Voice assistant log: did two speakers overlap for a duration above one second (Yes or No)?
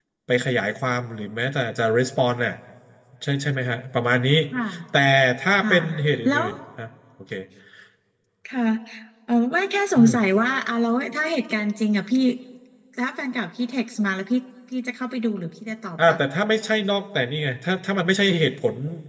No